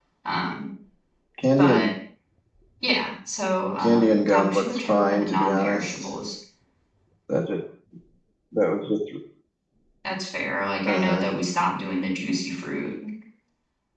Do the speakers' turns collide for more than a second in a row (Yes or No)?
Yes